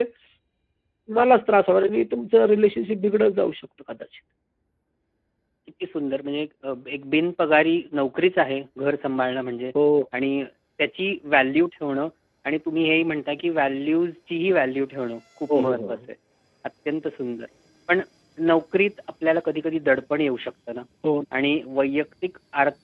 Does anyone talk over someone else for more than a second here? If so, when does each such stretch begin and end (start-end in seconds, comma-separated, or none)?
none